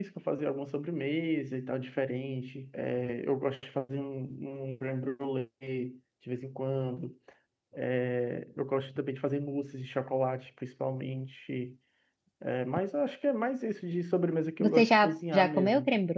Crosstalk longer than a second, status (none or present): present